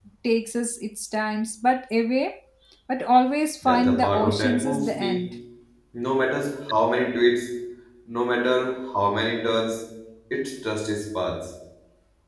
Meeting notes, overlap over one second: present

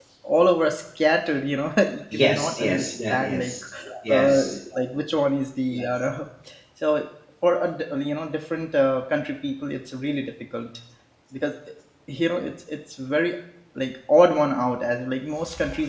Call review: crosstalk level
present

